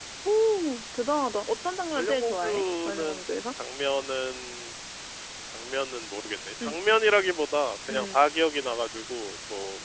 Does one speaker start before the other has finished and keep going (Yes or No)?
Yes